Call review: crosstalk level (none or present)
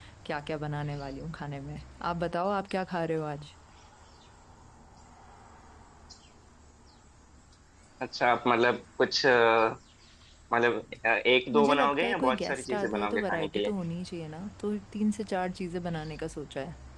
present